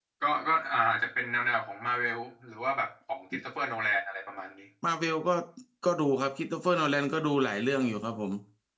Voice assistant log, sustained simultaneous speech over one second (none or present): none